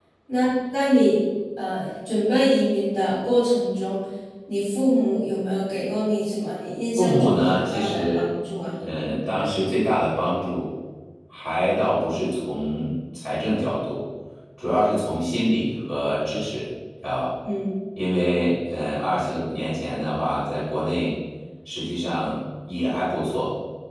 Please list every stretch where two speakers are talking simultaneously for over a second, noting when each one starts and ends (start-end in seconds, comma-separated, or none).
7.0-8.3